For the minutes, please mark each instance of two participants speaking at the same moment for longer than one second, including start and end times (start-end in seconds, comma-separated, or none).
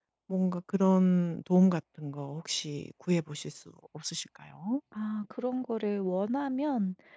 none